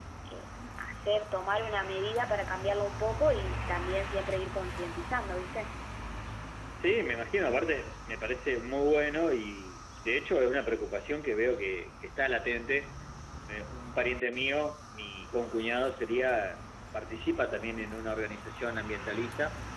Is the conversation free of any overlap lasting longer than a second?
Yes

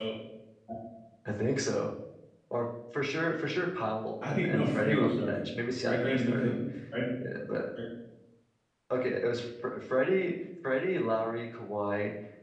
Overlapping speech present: Yes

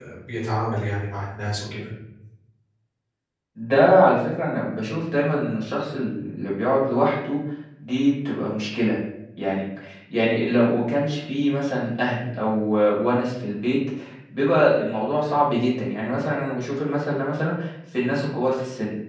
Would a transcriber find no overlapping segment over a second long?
Yes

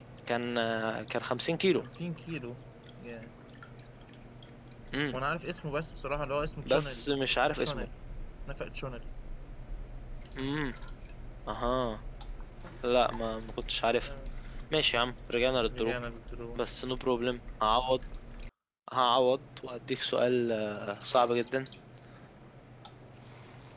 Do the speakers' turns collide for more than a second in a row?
Yes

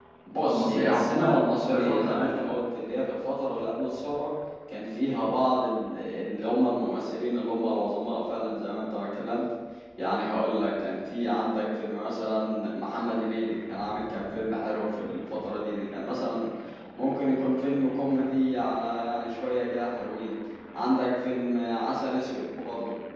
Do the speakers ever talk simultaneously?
Yes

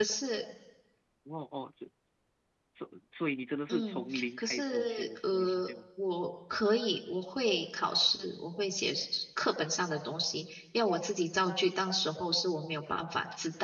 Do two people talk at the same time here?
Yes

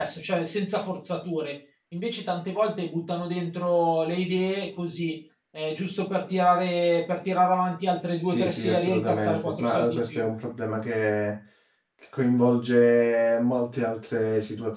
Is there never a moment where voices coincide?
No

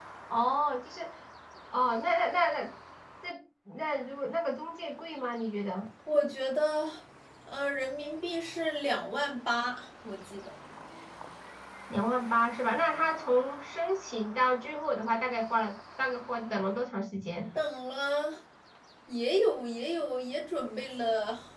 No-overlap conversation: Yes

